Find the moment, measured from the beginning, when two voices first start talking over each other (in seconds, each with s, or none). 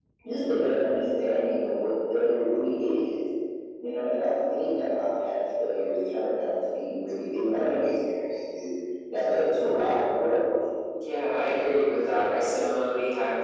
none